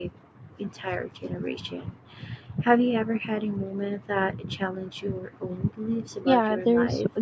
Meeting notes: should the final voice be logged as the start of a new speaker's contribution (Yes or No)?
Yes